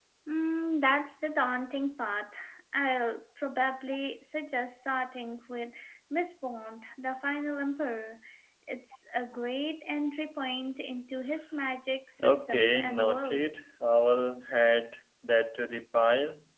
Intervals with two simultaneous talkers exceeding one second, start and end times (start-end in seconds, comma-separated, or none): 12.2-13.5